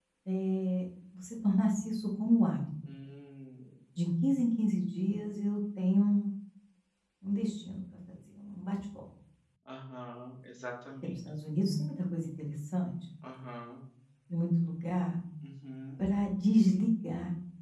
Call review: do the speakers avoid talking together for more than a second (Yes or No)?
Yes